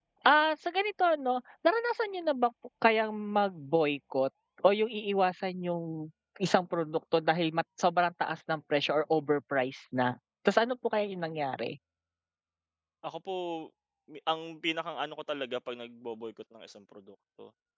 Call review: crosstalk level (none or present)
none